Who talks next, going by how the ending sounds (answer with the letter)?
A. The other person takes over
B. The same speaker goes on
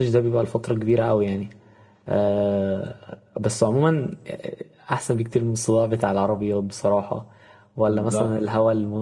B